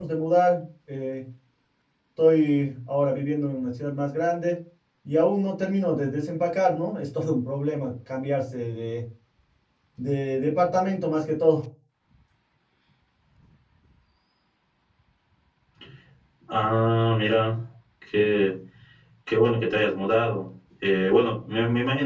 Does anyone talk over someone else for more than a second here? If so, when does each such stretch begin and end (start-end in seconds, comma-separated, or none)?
none